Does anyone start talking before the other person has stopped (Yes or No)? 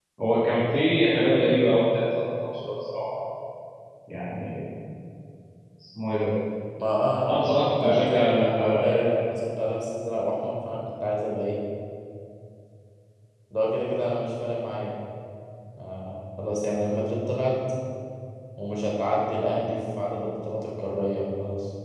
Yes